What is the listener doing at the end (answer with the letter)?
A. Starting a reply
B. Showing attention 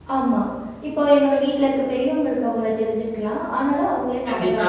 B